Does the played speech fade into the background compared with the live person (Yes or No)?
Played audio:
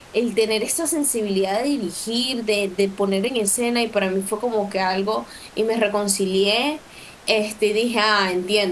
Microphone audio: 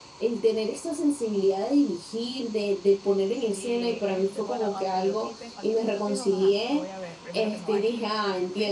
No